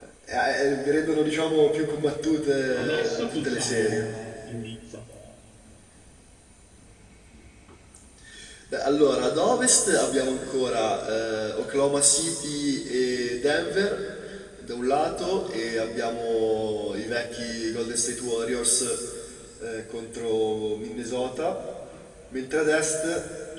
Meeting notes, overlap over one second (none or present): present